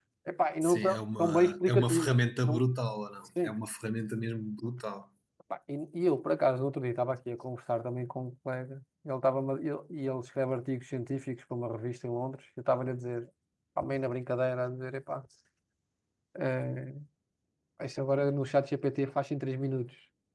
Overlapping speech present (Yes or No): Yes